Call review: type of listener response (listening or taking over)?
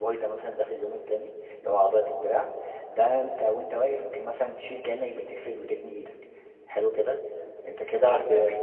listening